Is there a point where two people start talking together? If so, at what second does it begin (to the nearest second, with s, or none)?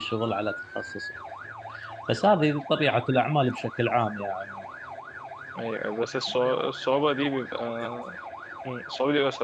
none